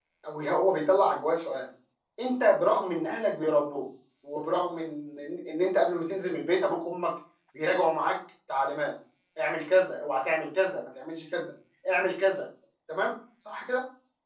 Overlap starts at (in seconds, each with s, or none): none